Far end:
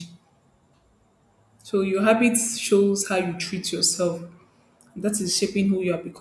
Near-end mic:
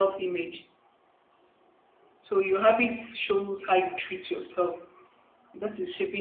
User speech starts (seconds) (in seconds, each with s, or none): none